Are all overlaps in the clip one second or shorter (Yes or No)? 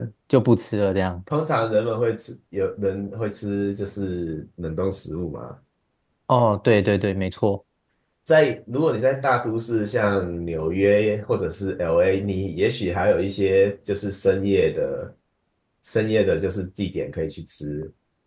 Yes